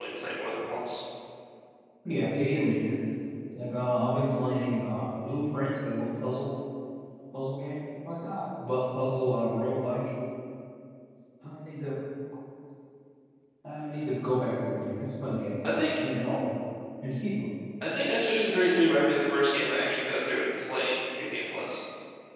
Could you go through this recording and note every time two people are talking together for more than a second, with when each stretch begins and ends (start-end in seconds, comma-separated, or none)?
none